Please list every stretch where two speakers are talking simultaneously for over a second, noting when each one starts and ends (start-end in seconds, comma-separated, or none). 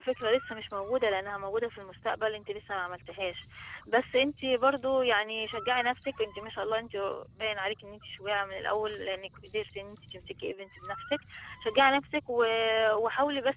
none